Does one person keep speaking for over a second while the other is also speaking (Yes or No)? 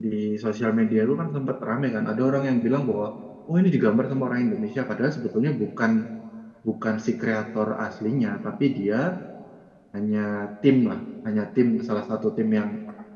No